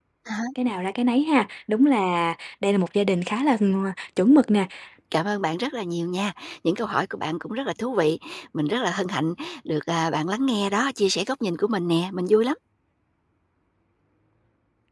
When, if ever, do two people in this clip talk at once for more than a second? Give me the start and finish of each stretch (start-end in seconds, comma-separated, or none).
none